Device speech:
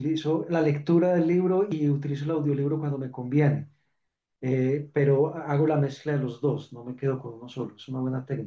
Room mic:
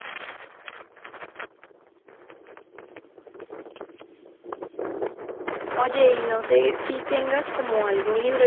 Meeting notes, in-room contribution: present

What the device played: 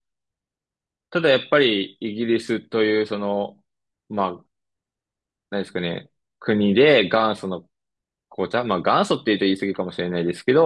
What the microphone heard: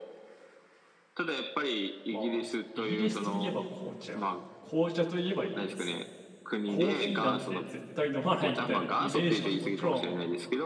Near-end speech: present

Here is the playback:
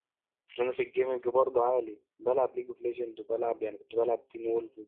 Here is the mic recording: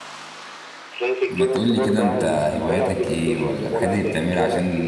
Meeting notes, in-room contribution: present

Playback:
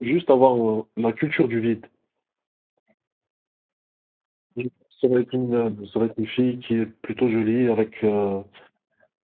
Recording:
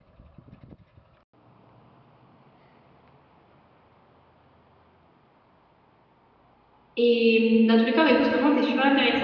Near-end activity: present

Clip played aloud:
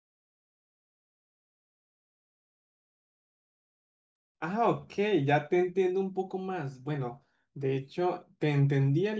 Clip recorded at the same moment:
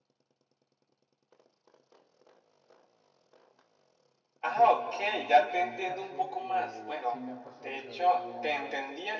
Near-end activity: present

